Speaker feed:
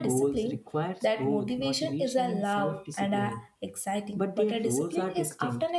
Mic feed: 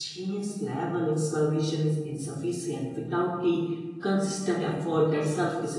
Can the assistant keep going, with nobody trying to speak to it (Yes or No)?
No